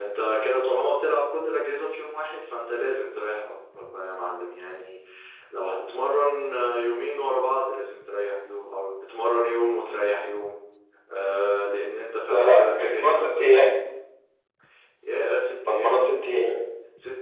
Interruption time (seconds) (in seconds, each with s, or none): 12.3 s